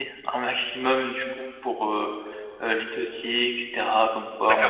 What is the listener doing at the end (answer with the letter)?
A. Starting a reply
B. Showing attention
A